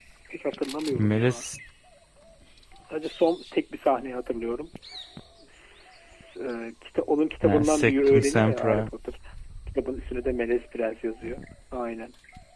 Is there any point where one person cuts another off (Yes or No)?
Yes